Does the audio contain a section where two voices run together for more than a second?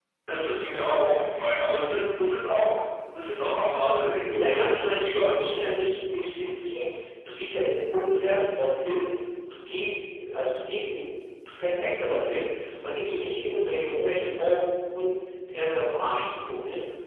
Yes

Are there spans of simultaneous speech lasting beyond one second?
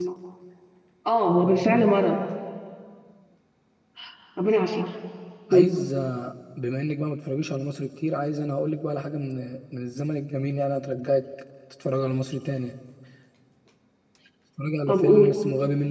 No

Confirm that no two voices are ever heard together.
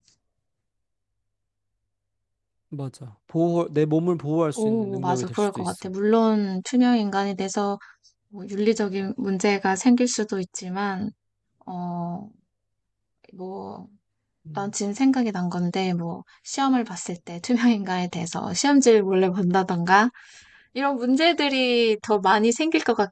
No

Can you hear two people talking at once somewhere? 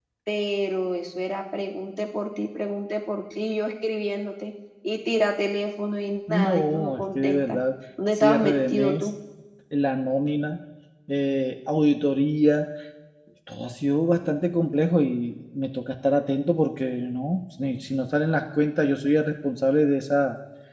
Yes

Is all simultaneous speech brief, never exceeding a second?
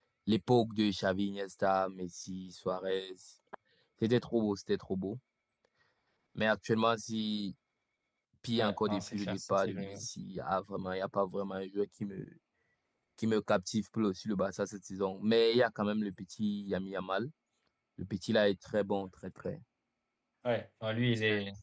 No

